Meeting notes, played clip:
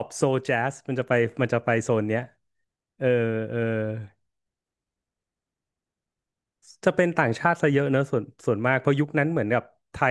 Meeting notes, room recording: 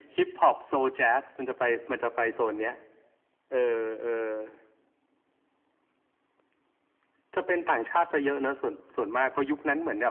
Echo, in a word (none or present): present